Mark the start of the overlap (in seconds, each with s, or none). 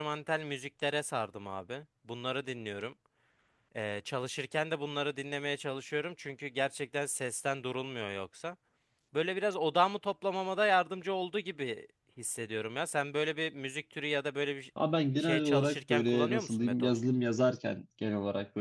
15.2 s